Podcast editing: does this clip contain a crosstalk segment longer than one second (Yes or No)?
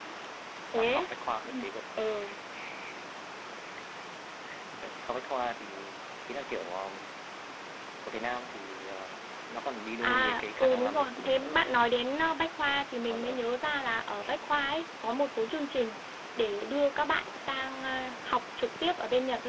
Yes